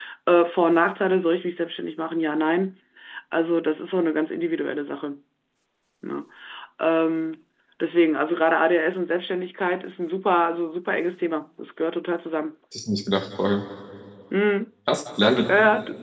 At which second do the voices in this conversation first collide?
none

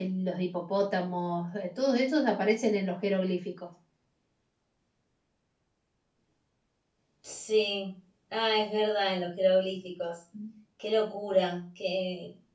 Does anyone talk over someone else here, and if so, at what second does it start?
none

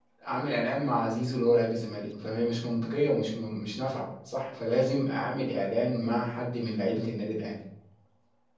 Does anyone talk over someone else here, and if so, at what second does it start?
none

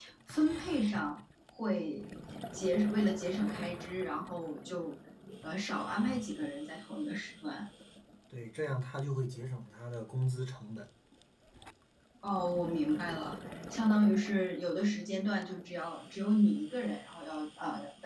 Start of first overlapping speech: none

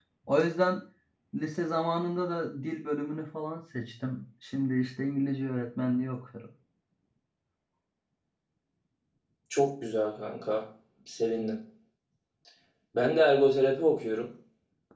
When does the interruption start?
none

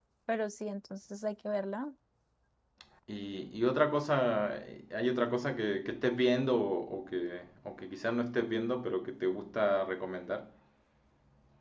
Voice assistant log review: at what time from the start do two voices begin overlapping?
none

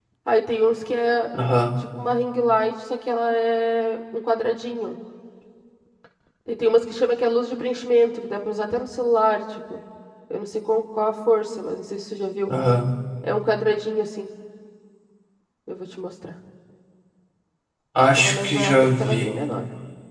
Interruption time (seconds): 18.2 s

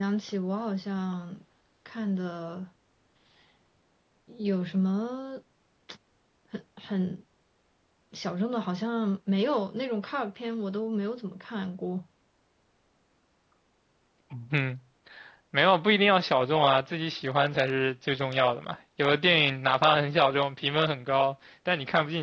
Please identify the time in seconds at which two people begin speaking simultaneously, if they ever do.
none

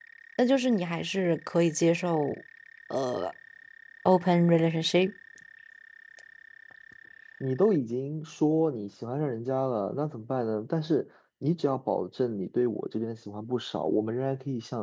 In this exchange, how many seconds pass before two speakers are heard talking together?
none

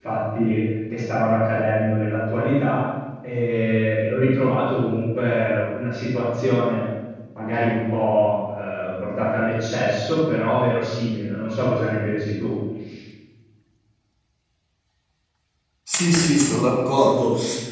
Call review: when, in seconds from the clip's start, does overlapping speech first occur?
none

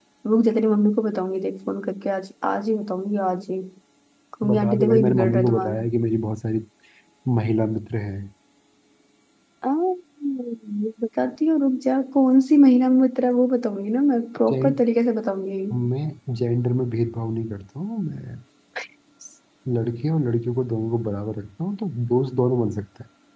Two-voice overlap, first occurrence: 4.5 s

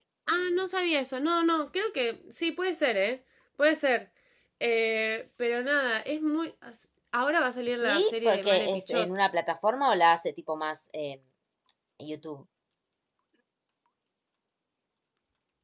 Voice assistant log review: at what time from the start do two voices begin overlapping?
7.8 s

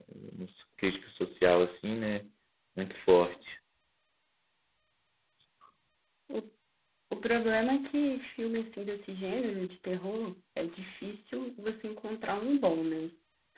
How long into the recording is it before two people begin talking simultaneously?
none

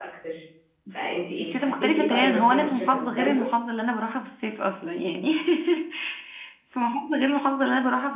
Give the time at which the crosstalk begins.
1.3 s

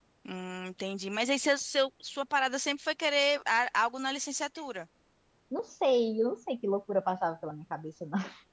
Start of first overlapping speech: none

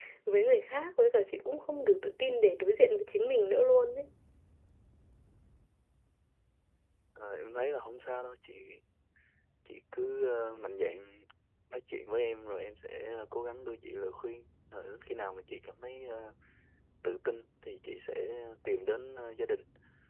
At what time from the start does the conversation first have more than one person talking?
none

